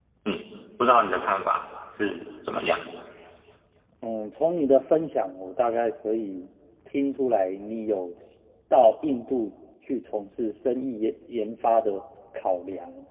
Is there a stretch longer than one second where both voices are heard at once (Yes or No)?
No